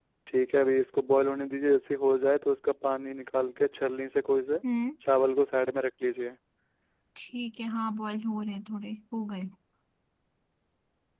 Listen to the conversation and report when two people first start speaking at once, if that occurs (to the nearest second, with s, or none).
none